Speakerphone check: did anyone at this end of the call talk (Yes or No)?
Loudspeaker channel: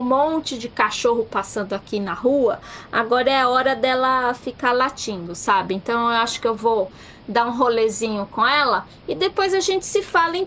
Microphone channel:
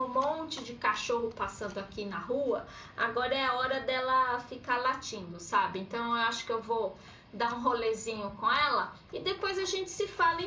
No